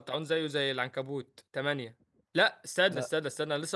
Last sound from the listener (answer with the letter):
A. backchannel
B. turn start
A